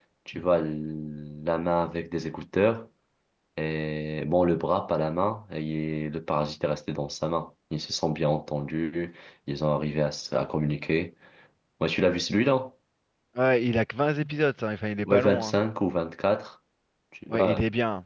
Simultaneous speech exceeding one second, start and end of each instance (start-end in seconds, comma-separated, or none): none